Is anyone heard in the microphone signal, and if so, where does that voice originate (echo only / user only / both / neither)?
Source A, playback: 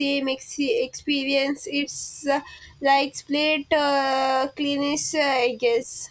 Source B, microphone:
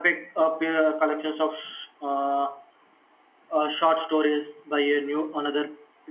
user only